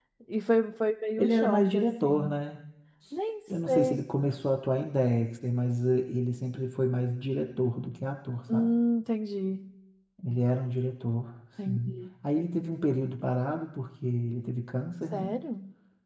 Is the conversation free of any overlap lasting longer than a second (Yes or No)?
No